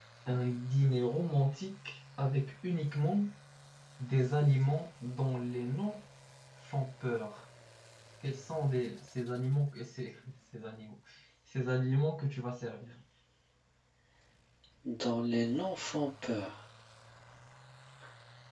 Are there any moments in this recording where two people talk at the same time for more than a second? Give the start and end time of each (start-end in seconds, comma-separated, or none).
none